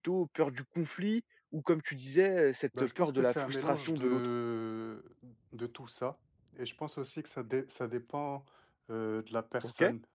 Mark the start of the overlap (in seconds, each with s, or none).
2.8 s